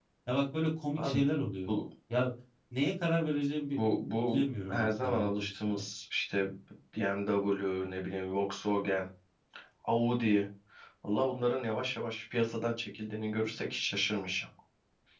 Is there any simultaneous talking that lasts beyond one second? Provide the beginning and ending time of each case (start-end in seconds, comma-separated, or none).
4.3-5.8